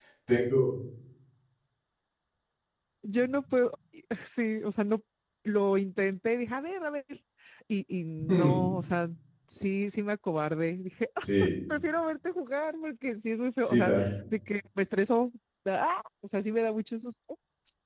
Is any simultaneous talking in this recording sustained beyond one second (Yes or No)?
No